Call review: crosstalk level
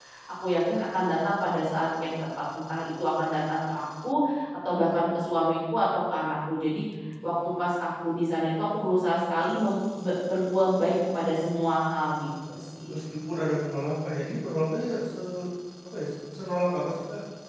none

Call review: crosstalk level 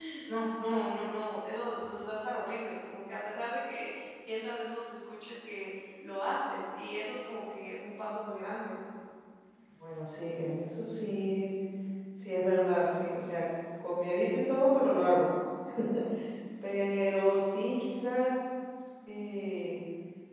none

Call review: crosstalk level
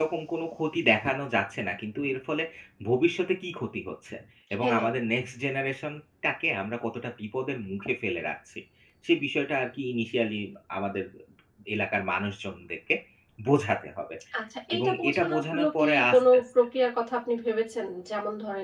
present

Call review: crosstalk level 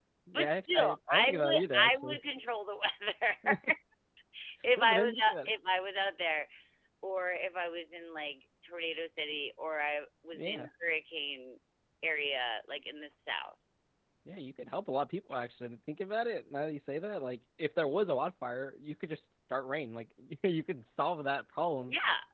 present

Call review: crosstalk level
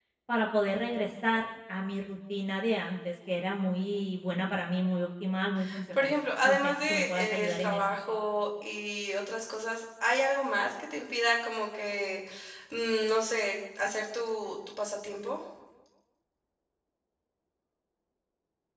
present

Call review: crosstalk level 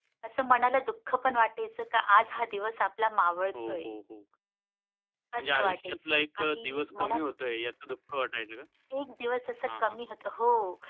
present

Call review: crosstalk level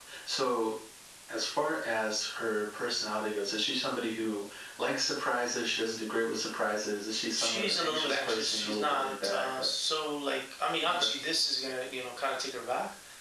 present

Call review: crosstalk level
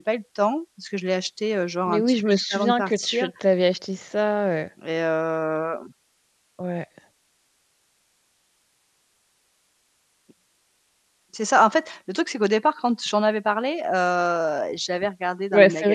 present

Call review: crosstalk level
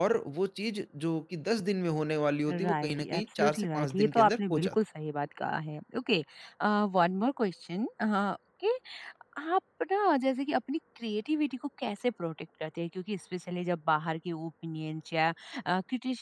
present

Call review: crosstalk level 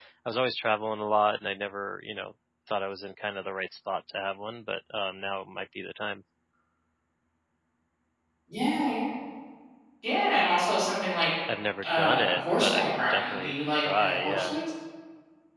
present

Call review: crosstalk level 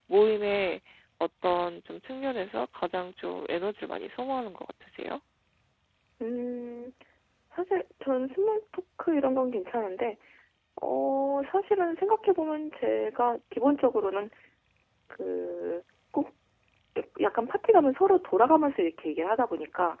none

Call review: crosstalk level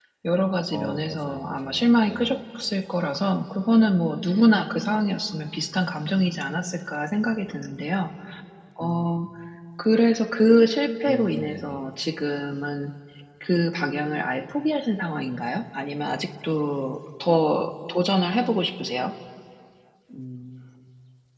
present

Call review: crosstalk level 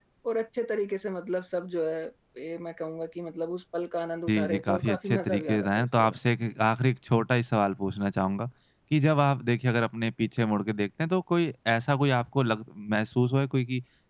present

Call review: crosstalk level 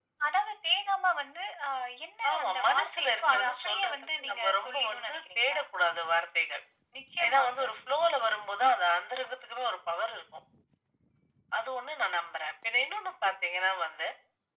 present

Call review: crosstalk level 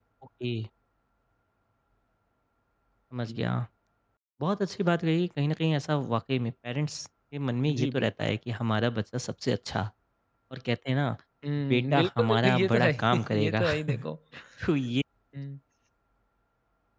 present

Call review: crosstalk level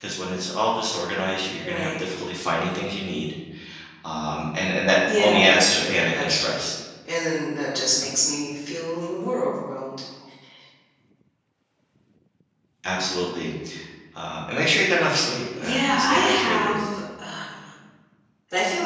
present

